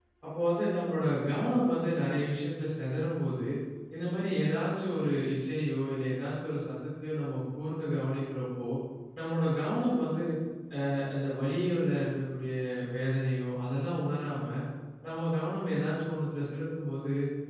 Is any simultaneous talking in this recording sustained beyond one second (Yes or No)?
No